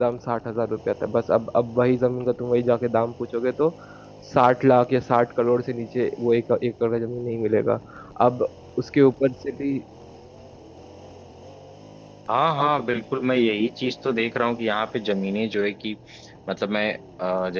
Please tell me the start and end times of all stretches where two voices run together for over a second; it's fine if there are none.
none

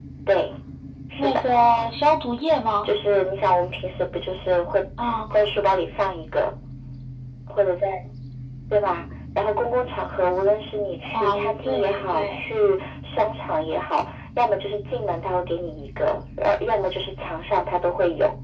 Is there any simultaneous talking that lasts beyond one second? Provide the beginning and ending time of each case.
11.1-12.4

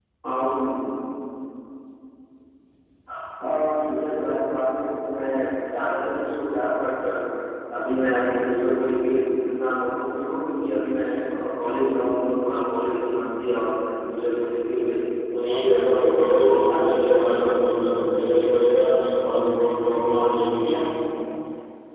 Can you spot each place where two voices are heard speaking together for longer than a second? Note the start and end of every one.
15.6-17.6

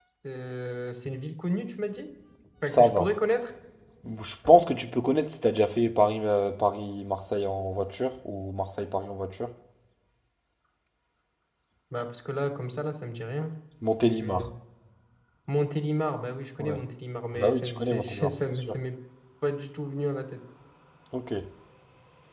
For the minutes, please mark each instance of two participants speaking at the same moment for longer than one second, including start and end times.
17.3-18.8

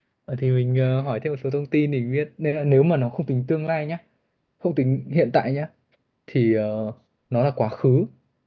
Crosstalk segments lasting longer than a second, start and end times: none

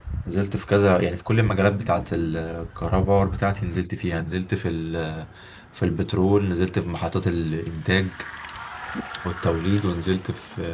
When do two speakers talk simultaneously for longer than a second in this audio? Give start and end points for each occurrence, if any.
none

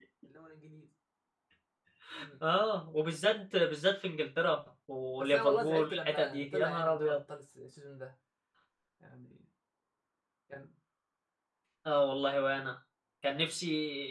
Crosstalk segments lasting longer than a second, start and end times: 5.2-7.2

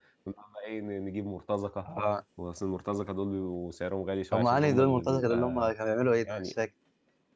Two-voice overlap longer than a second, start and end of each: 4.3-5.7

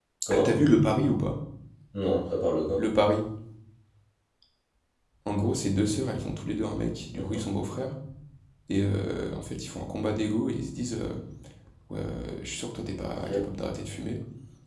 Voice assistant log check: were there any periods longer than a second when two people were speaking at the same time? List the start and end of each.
none

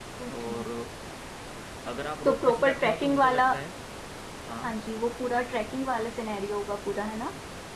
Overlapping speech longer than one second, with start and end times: 2.2-3.4

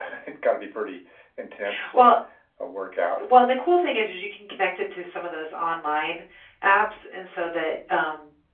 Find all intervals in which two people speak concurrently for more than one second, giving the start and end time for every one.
none

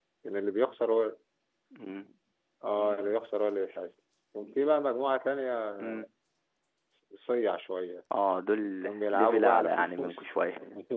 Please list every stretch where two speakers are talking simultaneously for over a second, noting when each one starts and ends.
8.8-10.3

